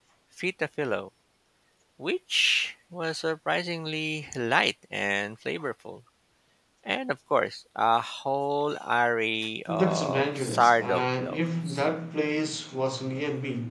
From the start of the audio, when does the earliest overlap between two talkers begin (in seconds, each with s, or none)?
9.7 s